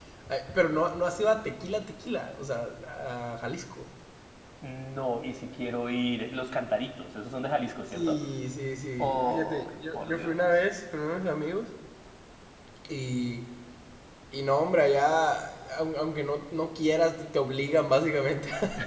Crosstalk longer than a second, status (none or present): present